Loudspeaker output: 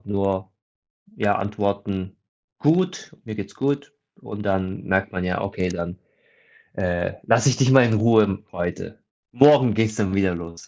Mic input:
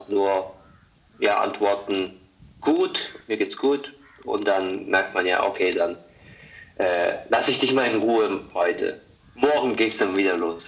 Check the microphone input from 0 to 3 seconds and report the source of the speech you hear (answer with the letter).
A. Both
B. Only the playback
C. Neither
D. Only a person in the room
B